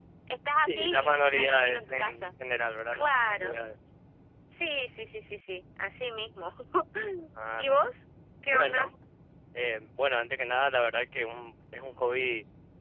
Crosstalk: present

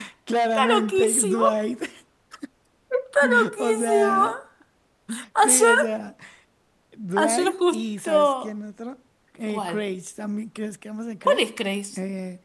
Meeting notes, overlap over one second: present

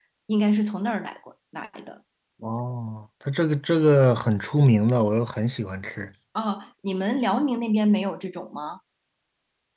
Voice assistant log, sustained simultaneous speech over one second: none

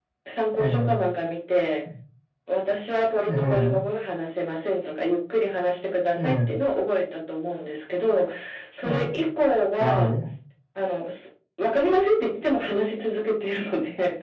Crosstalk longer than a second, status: none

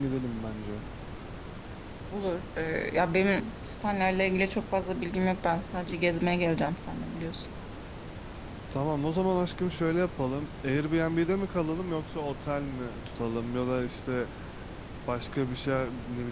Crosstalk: none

